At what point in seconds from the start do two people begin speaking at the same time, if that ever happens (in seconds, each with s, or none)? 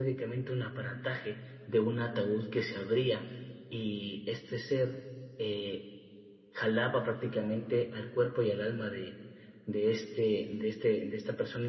none